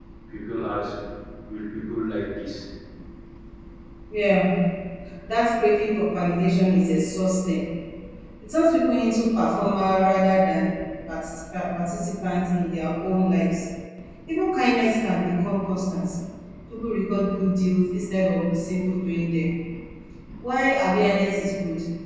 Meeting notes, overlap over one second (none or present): none